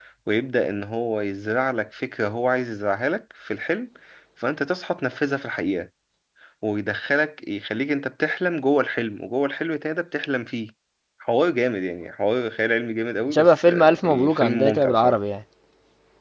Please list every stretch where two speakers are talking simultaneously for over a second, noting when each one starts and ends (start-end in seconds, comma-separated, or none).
13.3-15.2